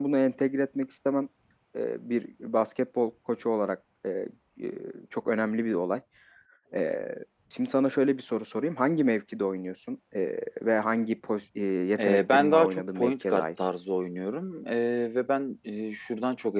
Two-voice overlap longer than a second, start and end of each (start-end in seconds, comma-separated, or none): 12.0-13.4